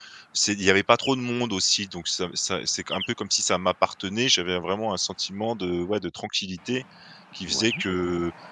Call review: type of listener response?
listening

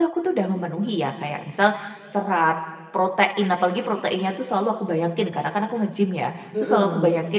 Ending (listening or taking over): listening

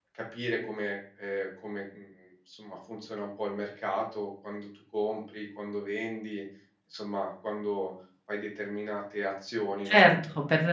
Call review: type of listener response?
taking over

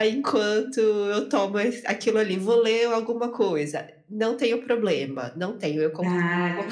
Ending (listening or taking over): taking over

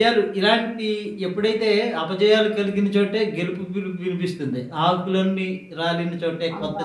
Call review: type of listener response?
taking over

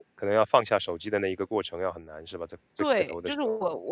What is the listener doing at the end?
taking over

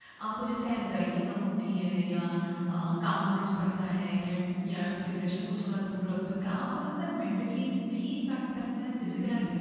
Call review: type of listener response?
taking over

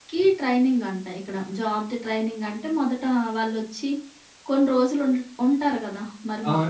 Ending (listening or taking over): taking over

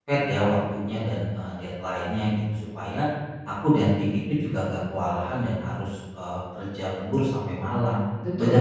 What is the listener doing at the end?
listening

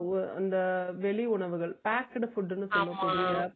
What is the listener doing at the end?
listening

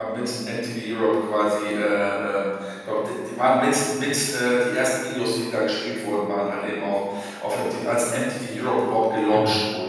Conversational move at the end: taking over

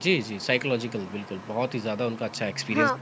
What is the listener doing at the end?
taking over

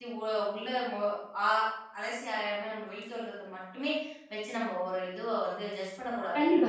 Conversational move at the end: taking over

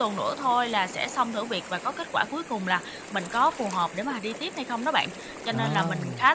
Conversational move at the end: listening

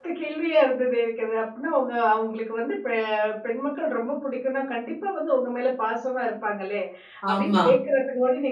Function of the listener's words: listening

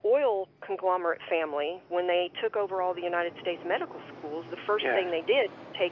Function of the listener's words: listening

